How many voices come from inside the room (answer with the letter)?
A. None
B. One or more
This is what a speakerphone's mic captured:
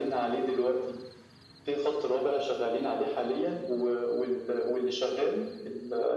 A